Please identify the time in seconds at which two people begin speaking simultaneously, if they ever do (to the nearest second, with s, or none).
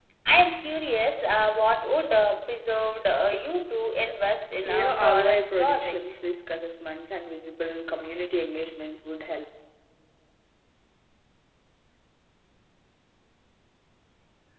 5 s